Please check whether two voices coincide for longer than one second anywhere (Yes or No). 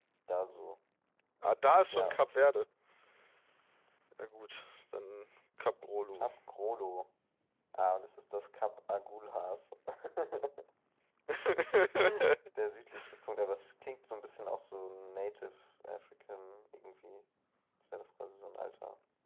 No